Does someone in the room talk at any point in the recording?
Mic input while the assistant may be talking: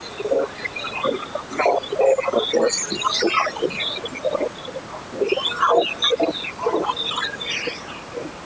No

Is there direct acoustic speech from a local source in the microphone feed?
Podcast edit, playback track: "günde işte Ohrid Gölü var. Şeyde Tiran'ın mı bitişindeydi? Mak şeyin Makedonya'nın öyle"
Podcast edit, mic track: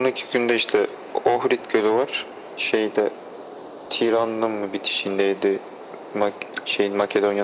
No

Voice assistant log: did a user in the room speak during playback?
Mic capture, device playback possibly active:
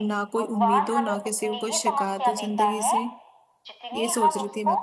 Yes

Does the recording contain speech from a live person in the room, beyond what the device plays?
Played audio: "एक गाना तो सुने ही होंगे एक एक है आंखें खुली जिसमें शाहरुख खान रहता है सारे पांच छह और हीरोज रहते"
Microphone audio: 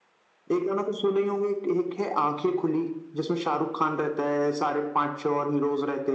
No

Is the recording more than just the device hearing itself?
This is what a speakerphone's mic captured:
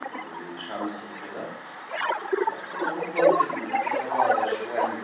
Yes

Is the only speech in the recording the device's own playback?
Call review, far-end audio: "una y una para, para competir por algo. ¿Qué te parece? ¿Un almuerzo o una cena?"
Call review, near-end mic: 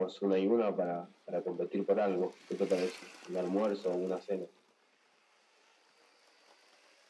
Yes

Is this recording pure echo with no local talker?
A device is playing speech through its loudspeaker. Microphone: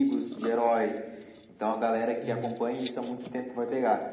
No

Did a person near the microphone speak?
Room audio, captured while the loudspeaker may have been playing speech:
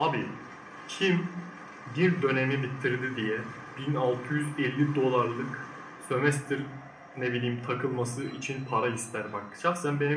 No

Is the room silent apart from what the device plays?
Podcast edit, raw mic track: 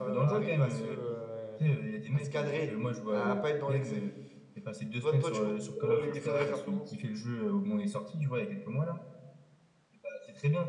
No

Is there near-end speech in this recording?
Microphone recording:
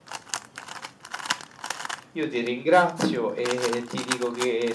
Yes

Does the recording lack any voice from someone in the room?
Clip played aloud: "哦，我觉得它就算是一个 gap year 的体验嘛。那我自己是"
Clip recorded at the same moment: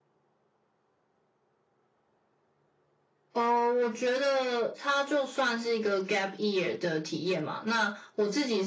Yes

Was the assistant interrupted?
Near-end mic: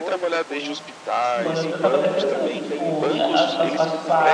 Yes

